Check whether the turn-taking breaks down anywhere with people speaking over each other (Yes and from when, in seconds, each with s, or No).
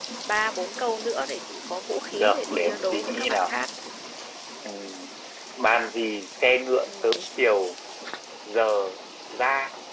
Yes, from 2.1 s